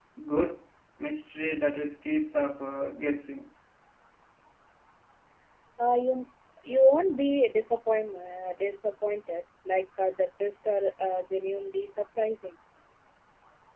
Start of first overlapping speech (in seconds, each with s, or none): none